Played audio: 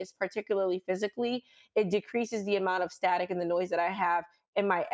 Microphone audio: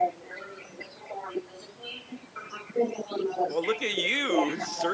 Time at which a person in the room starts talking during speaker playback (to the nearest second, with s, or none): 3 s